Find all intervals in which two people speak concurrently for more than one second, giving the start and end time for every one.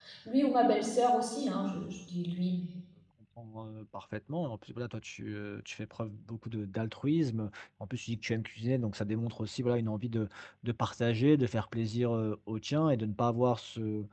none

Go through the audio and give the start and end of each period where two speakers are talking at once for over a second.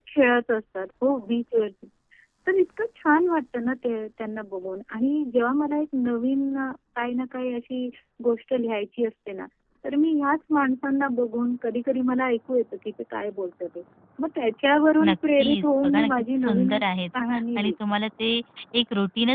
15.0-16.8

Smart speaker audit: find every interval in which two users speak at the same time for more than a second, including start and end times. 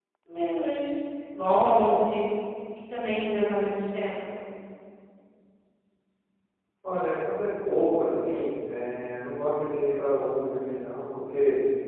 none

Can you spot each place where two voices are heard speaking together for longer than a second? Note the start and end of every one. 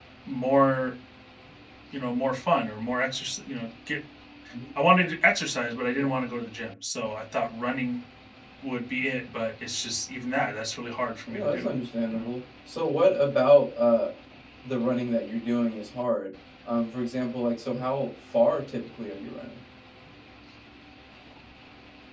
none

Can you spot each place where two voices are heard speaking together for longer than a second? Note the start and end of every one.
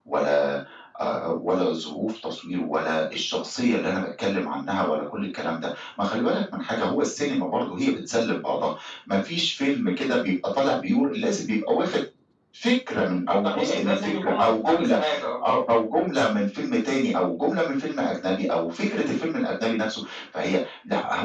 13.4-15.0

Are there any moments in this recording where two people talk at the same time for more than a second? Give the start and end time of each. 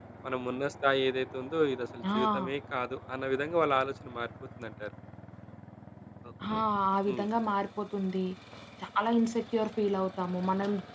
none

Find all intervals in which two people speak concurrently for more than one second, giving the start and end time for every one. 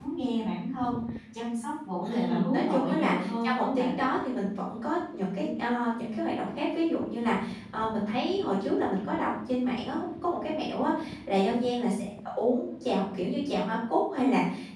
2.0-3.9

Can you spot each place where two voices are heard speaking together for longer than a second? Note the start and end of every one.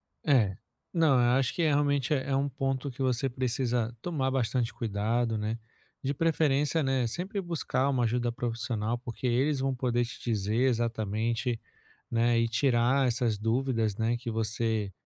none

